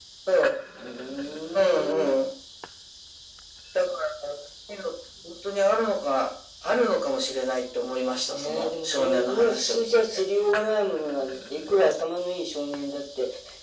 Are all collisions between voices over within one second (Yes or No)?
No